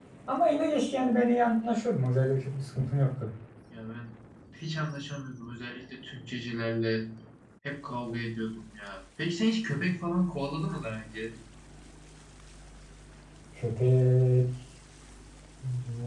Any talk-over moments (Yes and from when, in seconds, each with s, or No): No